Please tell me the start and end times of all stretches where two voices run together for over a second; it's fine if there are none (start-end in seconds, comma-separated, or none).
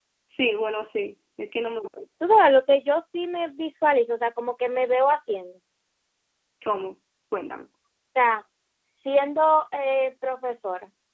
none